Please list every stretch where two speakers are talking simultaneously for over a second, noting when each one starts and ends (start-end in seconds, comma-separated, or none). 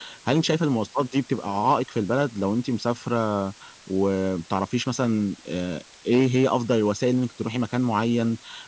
none